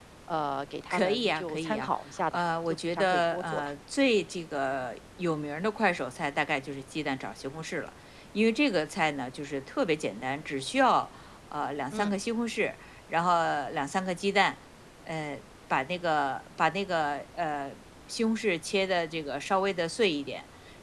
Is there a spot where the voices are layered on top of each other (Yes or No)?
Yes